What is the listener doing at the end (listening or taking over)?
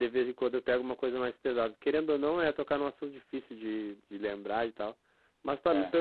listening